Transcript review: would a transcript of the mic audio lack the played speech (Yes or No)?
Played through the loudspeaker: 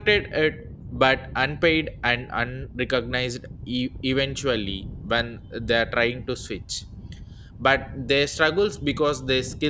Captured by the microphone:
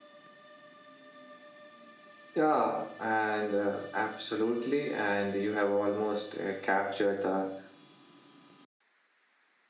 Yes